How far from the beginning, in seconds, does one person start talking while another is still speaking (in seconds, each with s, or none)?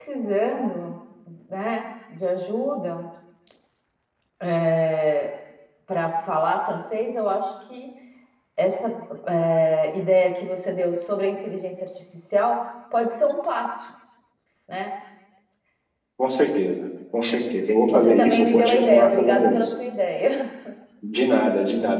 17.9 s